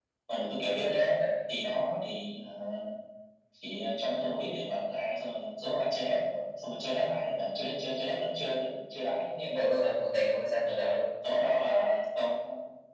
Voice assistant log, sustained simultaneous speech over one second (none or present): none